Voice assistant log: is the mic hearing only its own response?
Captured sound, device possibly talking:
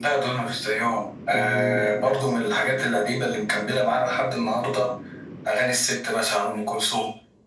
No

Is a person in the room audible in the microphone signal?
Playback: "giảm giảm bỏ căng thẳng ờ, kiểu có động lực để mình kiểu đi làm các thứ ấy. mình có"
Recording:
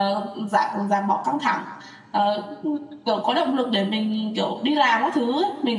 No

